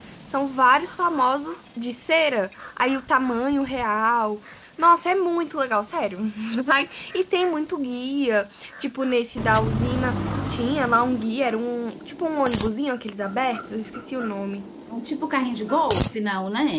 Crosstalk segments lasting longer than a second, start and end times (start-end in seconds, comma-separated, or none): none